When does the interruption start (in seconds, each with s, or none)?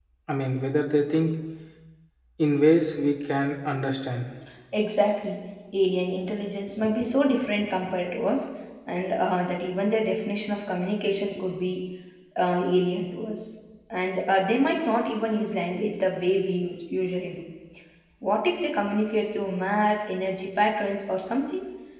none